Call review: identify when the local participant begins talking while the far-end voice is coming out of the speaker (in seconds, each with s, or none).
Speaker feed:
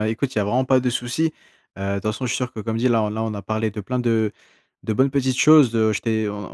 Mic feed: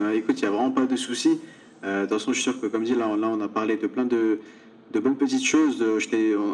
none